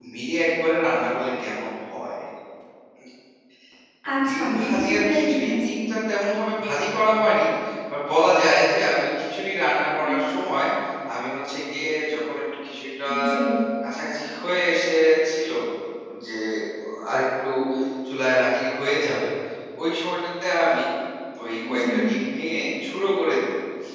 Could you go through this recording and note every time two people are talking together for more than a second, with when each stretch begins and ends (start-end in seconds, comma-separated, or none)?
4.3-5.7